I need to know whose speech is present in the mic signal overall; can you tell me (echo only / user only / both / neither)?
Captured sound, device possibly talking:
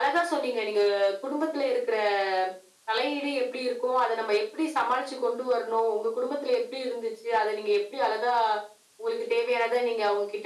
echo only